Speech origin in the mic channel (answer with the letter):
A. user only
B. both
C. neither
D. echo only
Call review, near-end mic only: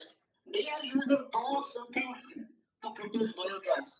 D